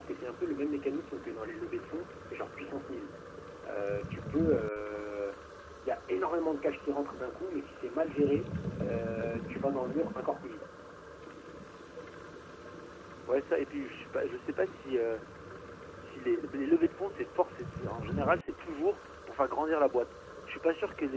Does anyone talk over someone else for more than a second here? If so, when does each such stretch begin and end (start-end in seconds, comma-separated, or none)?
none